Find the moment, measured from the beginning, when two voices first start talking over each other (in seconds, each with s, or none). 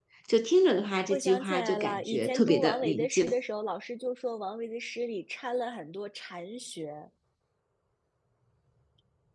1.1 s